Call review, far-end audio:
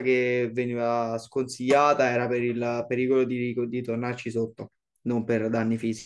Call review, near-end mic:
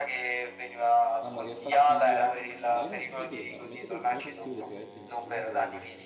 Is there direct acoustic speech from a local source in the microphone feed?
Yes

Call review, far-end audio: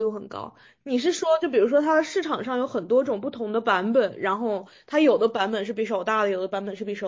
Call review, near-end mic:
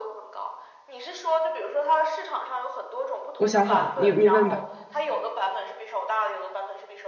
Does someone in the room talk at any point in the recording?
Yes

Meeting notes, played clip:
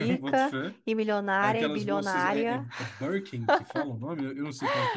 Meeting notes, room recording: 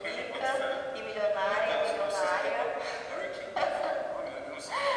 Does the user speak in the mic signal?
No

